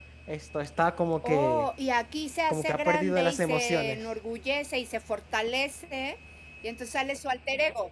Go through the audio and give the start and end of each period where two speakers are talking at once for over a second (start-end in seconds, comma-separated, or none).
2.5-4.0